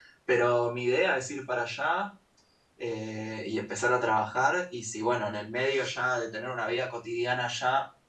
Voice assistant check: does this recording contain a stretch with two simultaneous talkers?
No

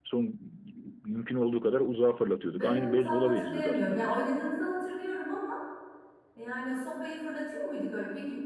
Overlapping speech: Yes, from 2.5 s

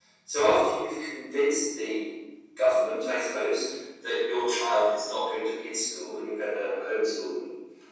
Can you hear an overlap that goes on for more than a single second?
No

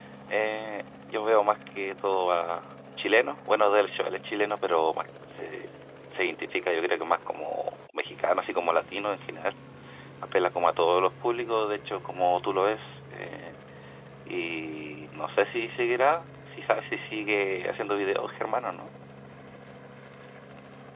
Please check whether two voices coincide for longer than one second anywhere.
No

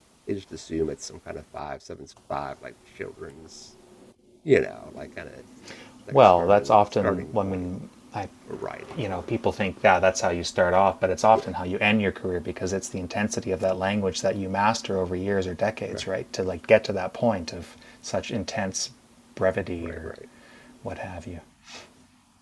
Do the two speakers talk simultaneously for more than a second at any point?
Yes, from 6.1 s

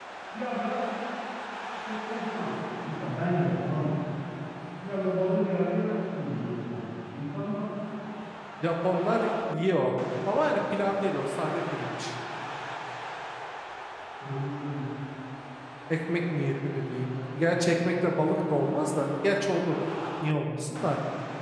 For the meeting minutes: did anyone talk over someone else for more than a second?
No

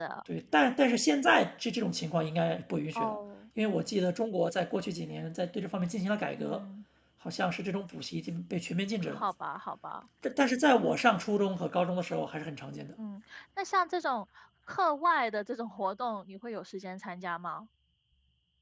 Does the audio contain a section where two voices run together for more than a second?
No

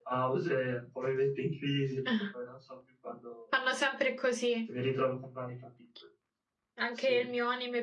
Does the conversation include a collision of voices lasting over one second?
No

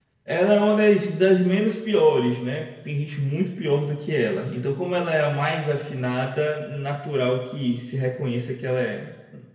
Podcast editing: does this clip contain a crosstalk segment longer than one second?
No

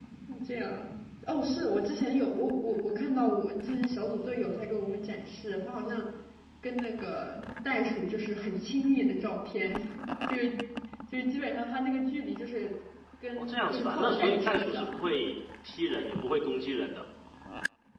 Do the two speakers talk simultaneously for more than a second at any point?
Yes, from 13.4 s

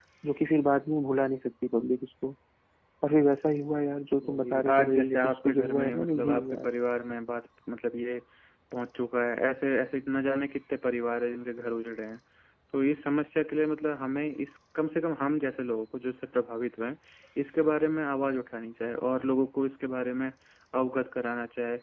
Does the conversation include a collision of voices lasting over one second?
Yes, from 4.2 s

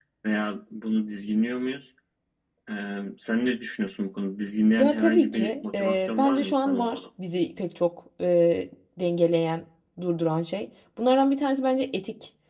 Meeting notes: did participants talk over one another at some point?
Yes, from 4.8 s

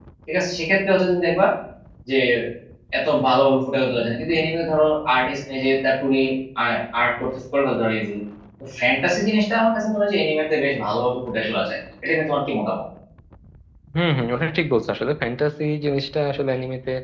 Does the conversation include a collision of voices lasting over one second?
No

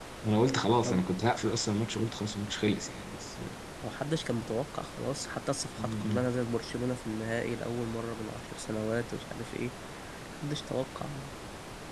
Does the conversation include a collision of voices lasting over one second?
No

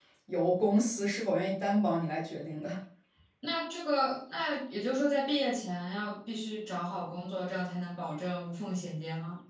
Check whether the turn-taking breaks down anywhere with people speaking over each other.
No

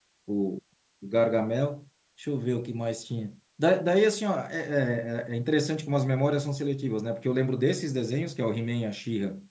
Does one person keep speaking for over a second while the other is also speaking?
No

